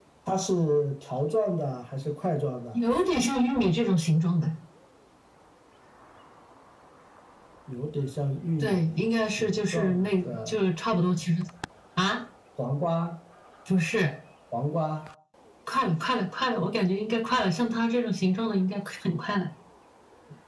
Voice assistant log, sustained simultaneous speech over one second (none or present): present